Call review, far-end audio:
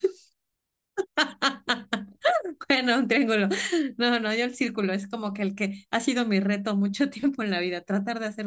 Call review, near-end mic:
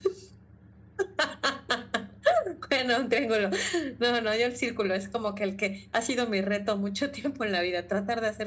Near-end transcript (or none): none